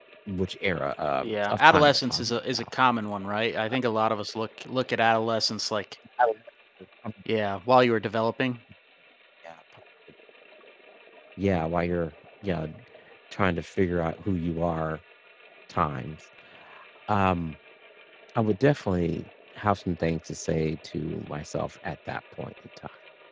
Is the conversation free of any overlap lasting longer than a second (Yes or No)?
No